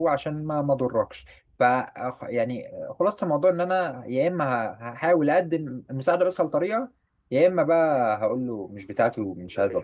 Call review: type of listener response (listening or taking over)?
taking over